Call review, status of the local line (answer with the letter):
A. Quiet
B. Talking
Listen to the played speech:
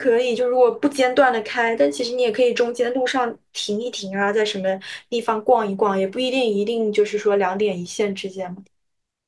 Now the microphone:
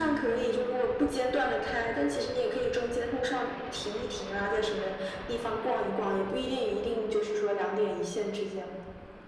A